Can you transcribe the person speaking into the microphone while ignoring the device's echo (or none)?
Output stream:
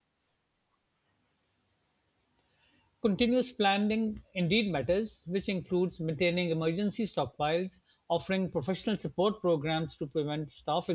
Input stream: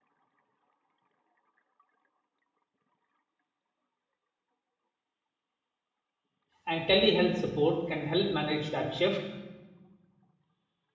and telehealth support can help manage that shift,